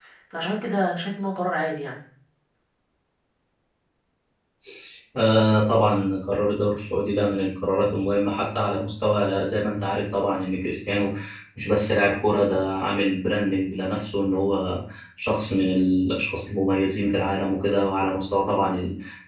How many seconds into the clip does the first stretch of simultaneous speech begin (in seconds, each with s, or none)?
none